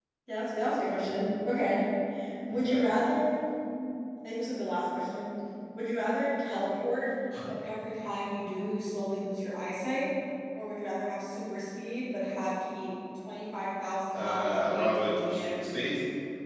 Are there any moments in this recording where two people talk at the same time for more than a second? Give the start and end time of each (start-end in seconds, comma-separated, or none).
14.1-15.6